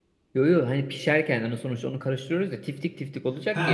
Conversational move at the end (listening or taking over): taking over